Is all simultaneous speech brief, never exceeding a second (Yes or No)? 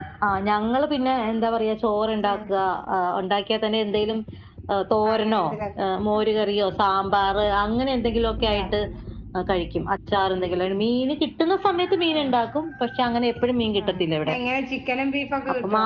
Yes